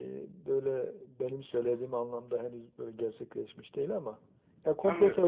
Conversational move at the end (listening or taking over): listening